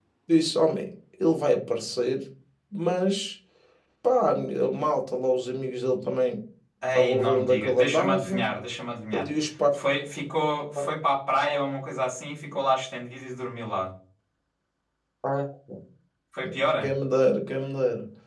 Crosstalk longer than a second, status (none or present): present